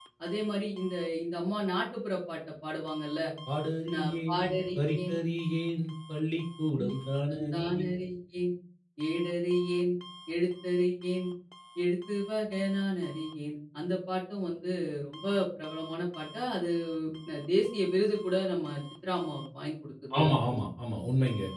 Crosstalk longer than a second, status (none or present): present